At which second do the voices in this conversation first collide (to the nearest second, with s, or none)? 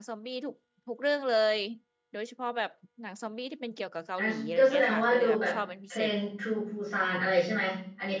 4 s